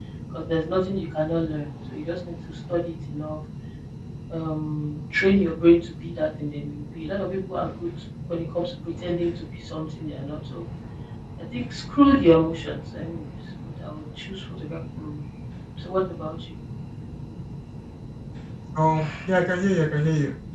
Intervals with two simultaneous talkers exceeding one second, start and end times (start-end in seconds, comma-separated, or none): none